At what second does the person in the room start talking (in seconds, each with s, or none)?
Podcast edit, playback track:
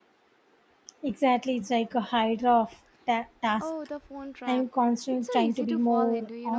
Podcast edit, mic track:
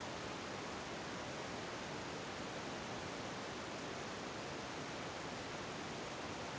none